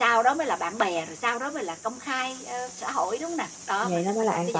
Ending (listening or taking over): taking over